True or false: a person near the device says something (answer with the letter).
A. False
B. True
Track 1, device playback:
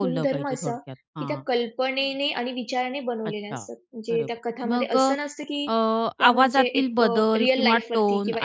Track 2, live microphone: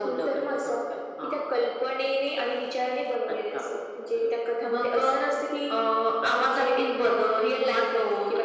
A